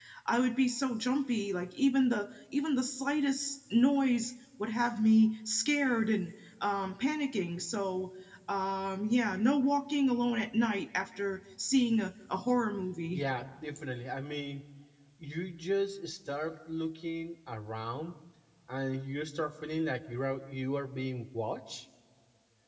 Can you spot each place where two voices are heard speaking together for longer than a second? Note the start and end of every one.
none

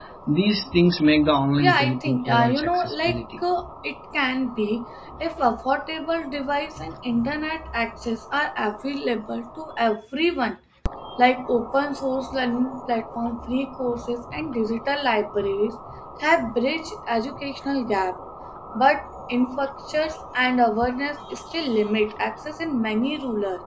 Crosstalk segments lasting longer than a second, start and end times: 1.6-3.2

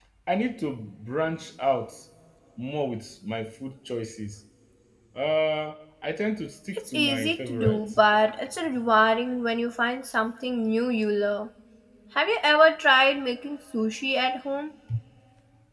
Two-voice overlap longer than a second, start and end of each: 6.7-8.0

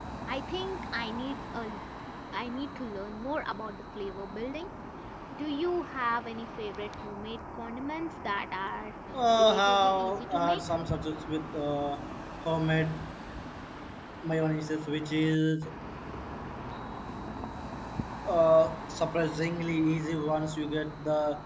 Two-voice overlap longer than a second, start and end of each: 9.3-10.6

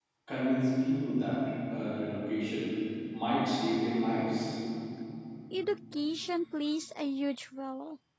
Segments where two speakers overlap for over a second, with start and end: none

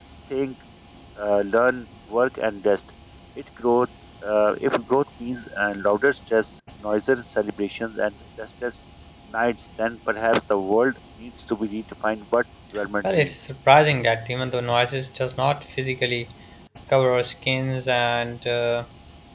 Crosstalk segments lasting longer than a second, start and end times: none

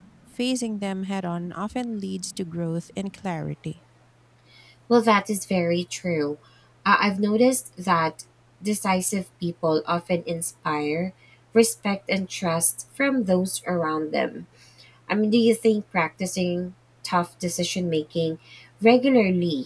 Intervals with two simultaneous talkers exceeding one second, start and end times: none

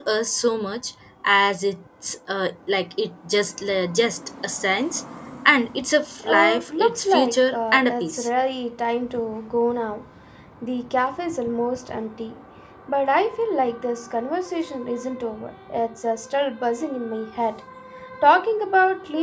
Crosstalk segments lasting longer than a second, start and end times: 6.2-8.3

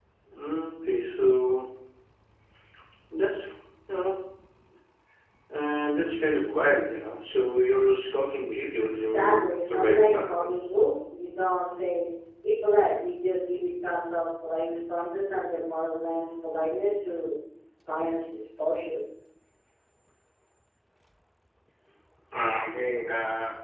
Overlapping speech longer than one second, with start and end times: 9.1-10.6

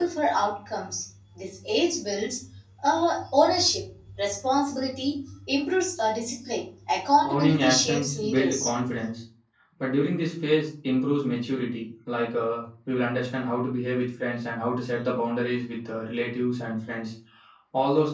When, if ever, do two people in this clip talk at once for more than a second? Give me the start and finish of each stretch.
7.2-8.7

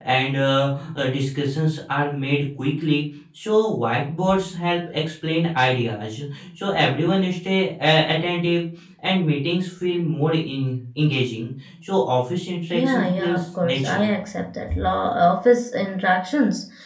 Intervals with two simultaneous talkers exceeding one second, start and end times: 12.7-14.1

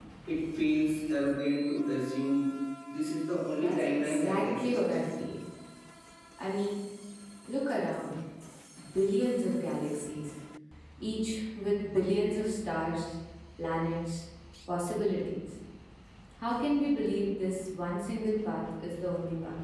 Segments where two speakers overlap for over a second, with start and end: 3.5-4.8

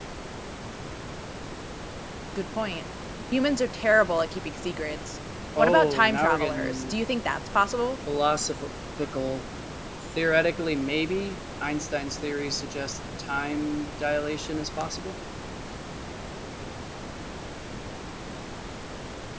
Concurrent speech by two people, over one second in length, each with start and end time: 5.6-6.9

